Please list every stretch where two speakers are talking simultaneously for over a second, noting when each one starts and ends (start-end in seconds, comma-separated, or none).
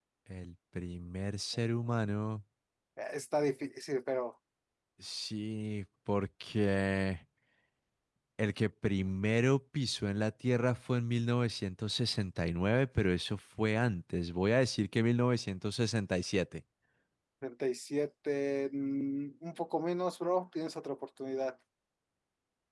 none